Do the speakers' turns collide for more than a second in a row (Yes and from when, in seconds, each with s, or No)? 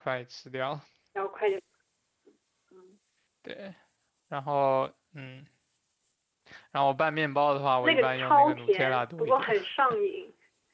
Yes, from 7.8 s